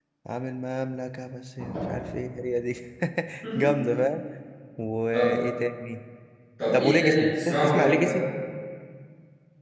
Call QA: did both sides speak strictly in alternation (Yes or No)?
No